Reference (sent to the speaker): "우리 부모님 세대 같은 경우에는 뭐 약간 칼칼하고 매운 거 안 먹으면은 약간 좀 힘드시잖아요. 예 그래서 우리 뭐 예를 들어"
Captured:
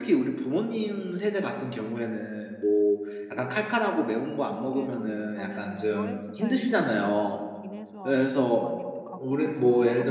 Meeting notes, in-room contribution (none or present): present